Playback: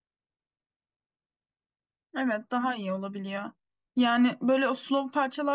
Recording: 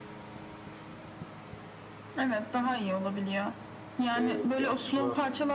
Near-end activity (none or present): present